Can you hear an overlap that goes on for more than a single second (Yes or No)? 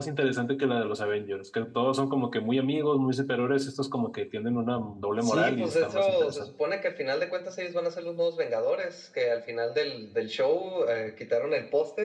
Yes